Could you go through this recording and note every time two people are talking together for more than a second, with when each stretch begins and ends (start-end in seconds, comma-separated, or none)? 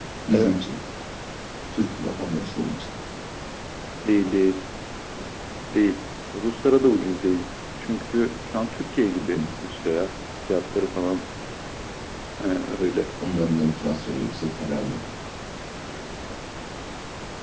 none